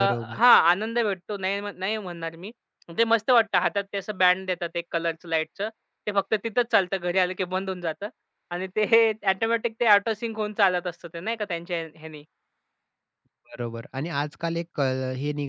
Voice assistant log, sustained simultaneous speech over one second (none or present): none